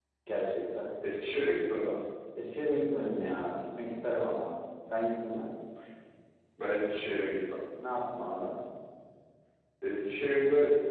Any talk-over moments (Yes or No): No